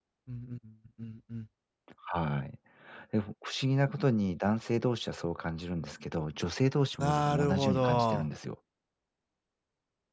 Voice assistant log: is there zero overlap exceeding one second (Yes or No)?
No